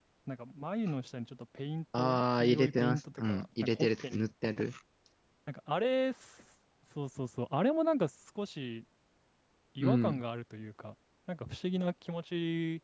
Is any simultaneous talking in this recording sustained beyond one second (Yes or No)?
Yes